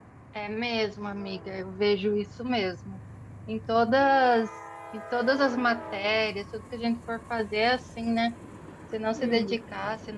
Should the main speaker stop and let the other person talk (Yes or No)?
No